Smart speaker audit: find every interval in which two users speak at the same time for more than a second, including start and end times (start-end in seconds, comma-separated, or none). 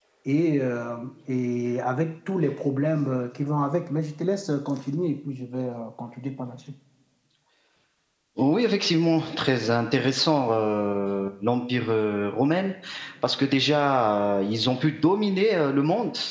none